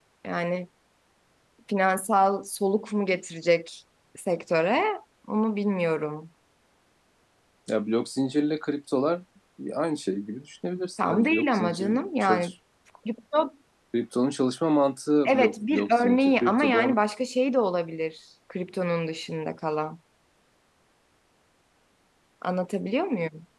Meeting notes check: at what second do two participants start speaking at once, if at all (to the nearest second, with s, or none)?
11 s